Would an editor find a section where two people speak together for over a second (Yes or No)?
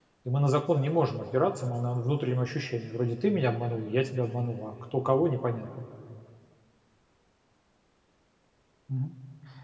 No